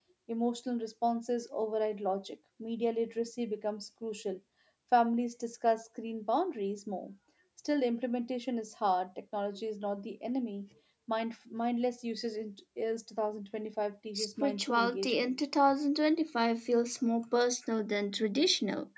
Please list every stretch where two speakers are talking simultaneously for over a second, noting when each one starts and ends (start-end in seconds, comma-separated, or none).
14.2-15.4